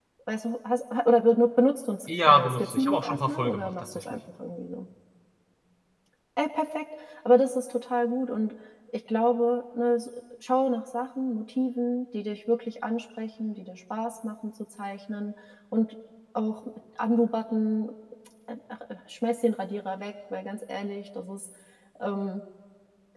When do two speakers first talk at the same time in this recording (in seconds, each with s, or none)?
2.1 s